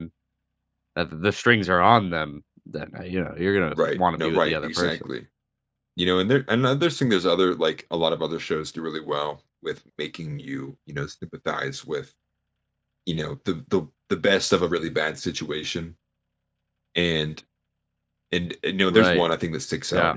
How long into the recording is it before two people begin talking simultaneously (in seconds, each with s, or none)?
3.7 s